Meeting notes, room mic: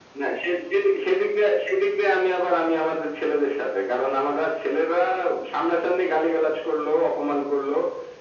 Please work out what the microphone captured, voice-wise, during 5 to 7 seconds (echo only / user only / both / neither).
echo only